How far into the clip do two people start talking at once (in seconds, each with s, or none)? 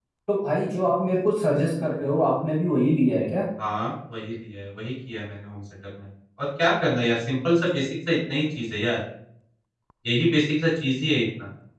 none